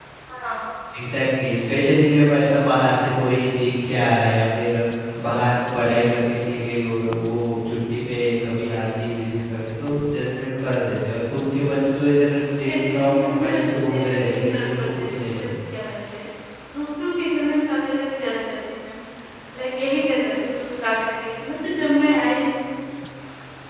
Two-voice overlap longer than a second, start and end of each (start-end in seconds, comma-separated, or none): 12.7-15.5